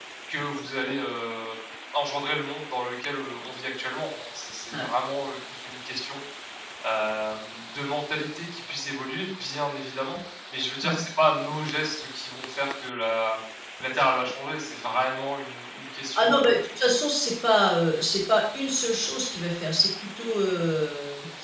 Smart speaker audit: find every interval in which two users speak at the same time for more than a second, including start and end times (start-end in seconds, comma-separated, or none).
none